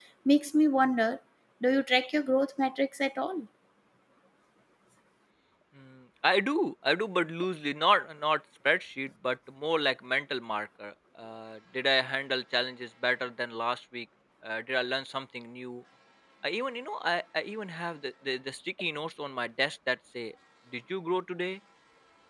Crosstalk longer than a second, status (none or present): none